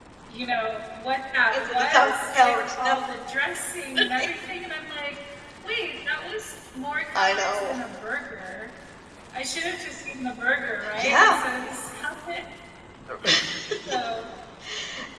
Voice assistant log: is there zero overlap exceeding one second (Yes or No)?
No